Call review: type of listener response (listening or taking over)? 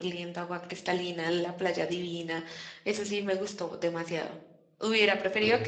listening